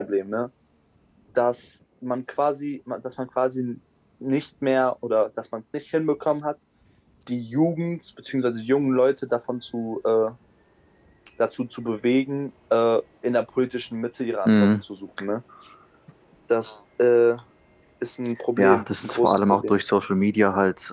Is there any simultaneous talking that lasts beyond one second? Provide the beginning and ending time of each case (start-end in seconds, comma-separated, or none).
18.6-19.8